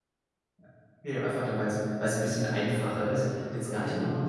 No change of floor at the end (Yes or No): Yes